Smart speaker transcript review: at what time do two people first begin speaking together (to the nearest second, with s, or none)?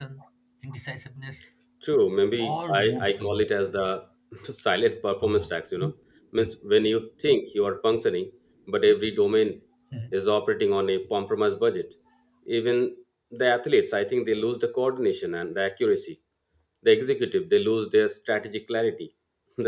2 s